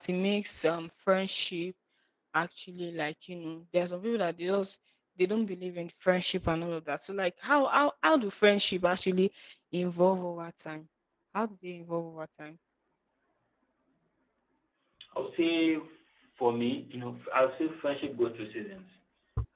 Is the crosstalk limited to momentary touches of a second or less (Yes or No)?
Yes